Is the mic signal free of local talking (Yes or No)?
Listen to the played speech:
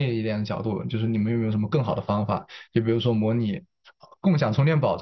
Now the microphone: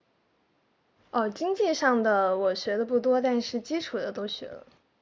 No